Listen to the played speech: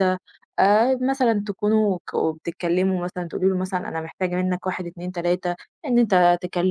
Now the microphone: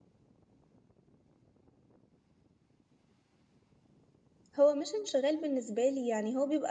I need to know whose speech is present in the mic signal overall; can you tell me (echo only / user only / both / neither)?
user only